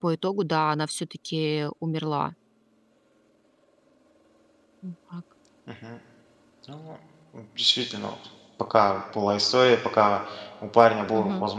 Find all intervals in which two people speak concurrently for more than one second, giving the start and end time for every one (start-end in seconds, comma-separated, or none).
none